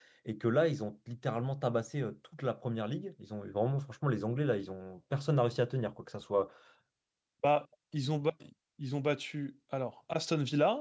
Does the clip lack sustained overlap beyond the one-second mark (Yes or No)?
Yes